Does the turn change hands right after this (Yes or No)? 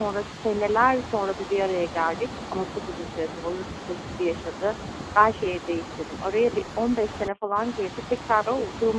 No